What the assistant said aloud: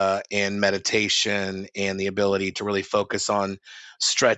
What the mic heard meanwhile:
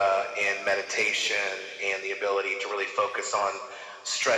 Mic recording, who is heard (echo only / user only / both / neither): echo only